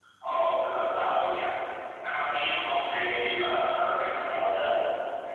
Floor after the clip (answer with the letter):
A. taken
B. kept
B